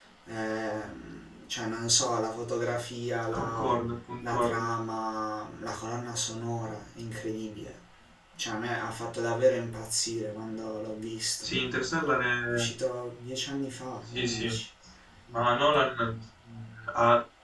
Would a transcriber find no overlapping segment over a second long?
Yes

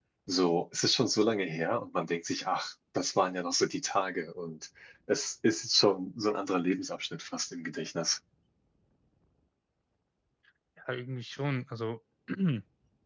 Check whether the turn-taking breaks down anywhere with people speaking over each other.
No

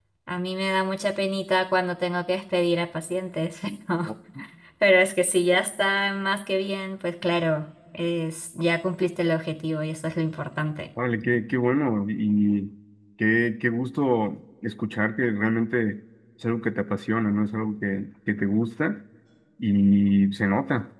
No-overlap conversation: Yes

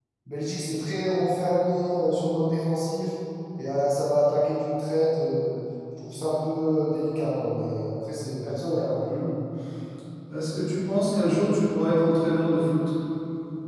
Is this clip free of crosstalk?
Yes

